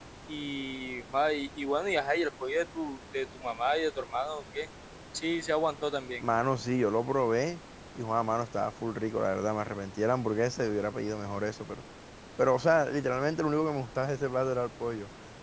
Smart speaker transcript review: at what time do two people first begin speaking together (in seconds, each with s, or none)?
none